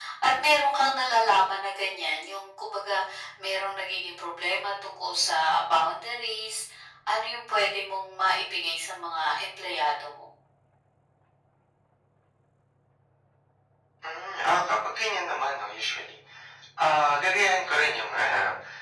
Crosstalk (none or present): none